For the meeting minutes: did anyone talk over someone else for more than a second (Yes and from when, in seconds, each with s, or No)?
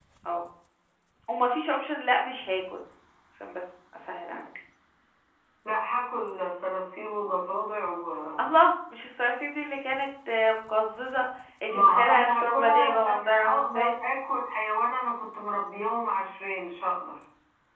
Yes, from 11.7 s